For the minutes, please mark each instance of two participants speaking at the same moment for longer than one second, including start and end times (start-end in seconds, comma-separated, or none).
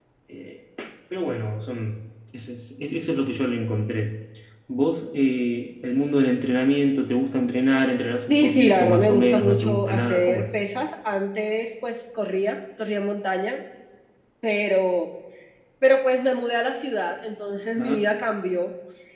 8.3-10.4